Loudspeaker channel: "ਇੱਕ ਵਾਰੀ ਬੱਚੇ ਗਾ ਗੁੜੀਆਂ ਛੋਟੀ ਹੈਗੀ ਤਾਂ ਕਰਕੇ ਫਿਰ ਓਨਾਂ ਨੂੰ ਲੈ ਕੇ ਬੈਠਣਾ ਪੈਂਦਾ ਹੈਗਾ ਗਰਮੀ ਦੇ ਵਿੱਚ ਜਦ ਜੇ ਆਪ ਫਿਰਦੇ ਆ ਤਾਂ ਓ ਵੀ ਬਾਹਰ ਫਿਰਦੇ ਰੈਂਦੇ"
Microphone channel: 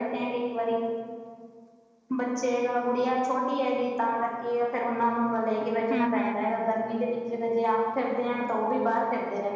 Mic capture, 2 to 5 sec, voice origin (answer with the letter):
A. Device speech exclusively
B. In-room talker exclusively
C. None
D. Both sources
A